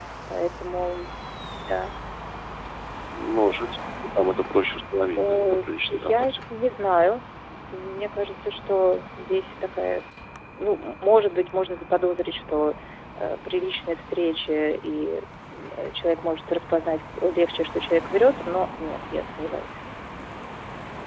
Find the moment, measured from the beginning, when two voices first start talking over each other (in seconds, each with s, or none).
5.2 s